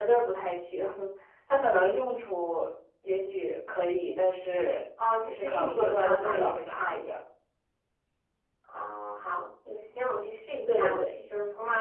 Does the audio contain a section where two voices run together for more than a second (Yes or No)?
Yes